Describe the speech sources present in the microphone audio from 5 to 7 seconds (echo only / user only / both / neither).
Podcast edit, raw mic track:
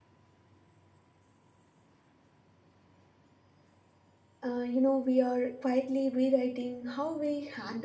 user only